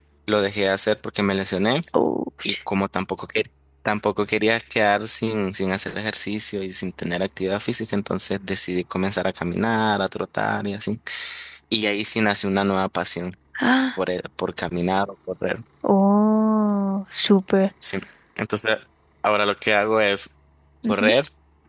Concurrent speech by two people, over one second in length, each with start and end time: none

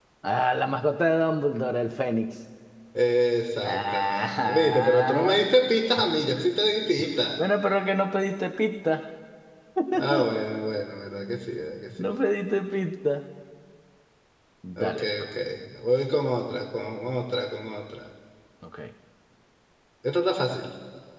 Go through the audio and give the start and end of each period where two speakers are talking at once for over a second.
3.6-5.4

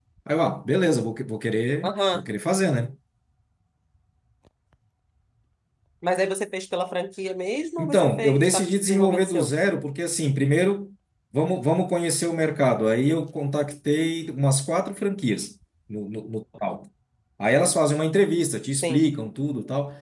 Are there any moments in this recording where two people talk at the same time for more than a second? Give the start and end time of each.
7.8-9.5

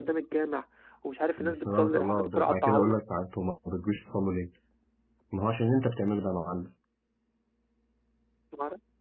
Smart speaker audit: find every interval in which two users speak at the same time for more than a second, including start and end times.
1.4-3.0

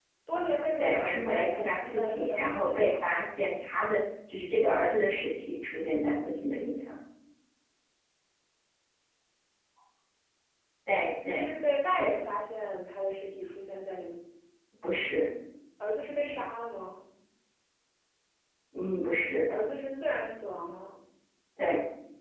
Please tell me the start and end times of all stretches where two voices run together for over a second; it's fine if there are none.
0.8-3.0

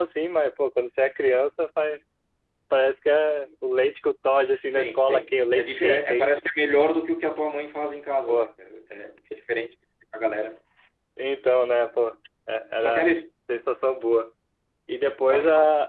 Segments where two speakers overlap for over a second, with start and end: 4.7-6.4

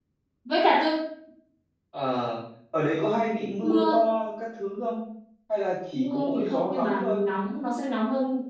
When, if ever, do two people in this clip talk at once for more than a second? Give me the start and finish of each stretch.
5.9-7.2

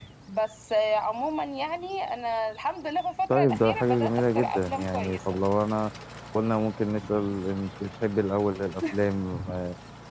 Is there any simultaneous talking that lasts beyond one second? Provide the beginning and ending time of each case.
3.3-5.2

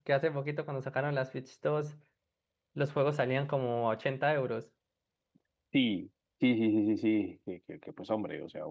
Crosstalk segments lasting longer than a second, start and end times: none

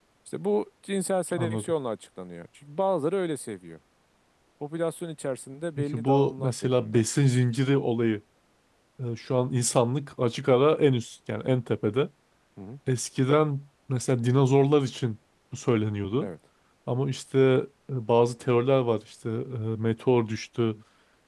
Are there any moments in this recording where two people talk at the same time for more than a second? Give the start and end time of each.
5.8-7.0

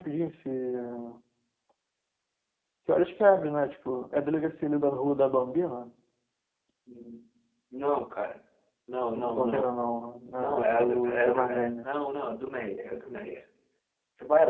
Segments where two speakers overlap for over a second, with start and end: 10.4-11.9

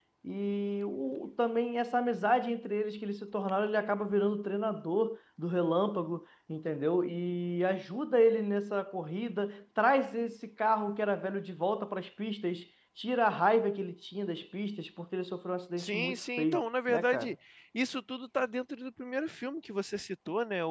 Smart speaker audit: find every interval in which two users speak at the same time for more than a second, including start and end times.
15.8-17.3

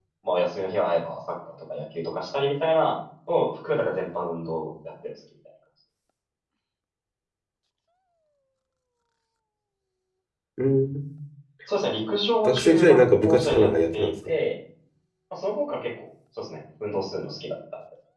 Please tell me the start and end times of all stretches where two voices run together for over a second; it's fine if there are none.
12.4-14.1

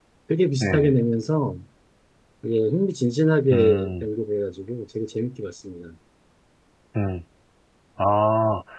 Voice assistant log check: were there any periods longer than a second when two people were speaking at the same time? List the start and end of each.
none

